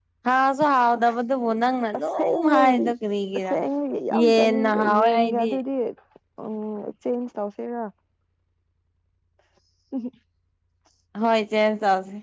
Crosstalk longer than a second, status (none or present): present